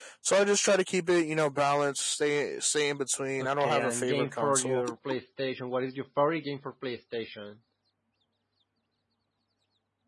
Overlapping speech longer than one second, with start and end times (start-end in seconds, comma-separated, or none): 3.4-4.8